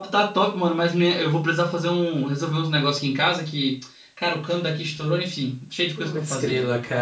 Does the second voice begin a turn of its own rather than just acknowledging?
Yes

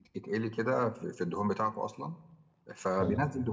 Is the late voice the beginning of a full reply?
No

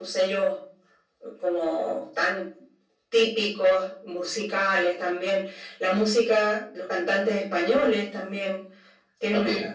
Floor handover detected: No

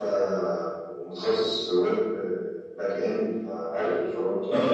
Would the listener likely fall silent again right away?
No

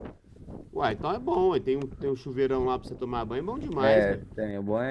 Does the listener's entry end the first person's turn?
Yes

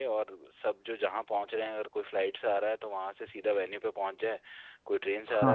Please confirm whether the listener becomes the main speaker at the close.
Yes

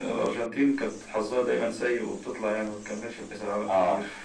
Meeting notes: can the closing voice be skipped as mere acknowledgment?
No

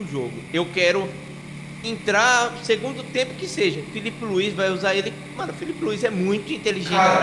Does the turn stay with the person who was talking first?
No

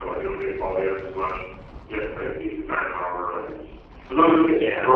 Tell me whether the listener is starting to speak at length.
No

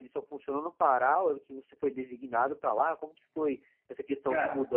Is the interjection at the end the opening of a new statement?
No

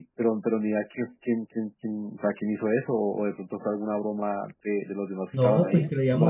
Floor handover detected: Yes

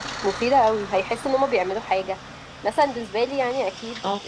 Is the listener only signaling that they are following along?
Yes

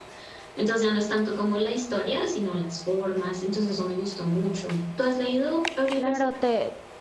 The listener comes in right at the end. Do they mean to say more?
Yes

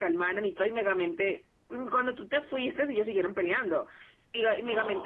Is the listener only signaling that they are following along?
Yes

